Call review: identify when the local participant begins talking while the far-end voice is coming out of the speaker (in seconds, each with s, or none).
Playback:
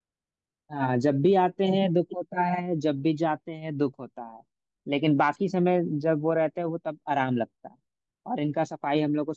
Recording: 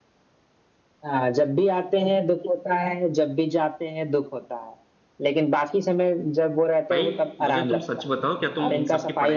6.9 s